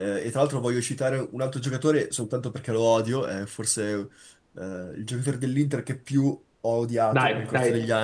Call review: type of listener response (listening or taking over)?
taking over